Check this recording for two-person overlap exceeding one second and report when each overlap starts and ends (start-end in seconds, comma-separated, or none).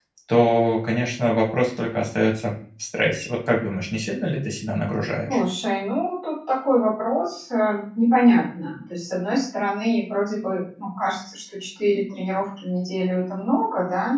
none